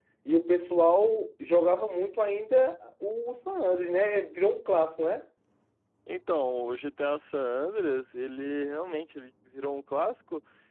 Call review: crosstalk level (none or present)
none